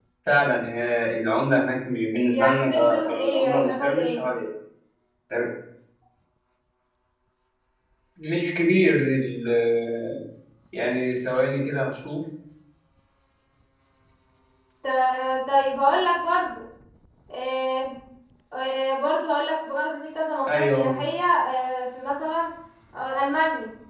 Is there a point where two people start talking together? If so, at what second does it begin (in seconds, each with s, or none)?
2.3 s